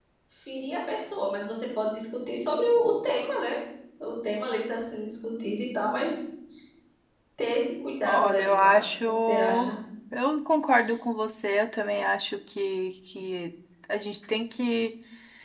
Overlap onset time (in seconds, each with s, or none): 8.0 s